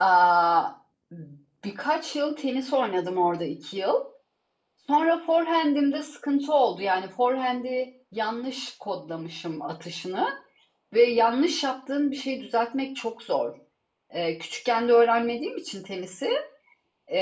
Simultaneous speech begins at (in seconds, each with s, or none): none